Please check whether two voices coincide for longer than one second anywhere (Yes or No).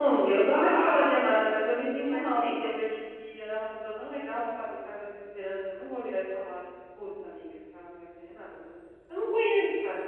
Yes